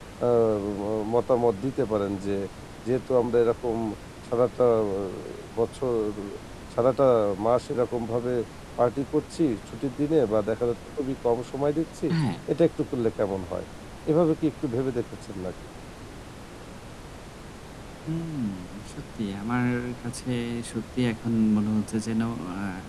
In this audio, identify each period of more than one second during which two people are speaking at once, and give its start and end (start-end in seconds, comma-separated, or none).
none